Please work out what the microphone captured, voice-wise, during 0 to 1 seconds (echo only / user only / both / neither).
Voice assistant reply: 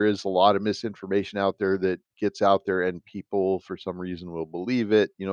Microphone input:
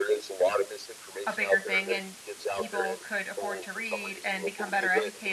echo only